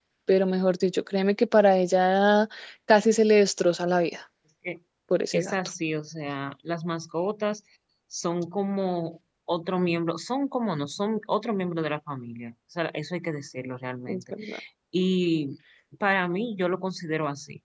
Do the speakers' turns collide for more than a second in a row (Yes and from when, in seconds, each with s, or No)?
No